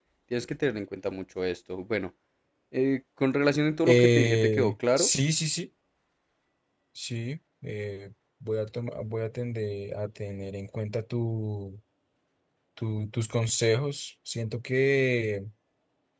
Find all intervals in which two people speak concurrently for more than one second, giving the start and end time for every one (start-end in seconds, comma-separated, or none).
3.8-5.1